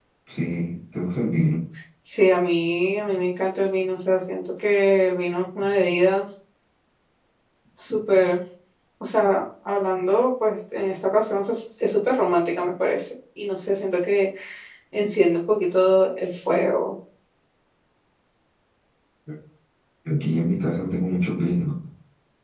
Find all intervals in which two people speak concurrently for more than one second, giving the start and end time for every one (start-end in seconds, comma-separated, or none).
none